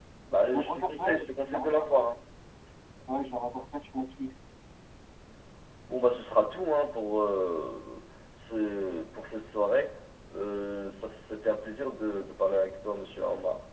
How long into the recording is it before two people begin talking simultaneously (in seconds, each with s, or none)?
0.5 s